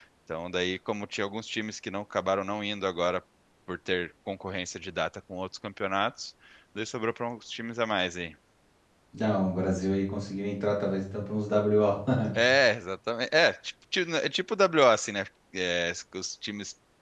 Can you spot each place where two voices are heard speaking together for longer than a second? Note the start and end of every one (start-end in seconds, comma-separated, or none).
none